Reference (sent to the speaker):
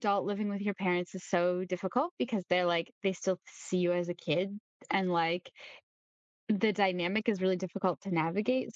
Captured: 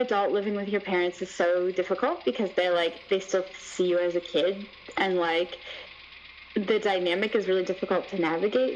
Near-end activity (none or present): none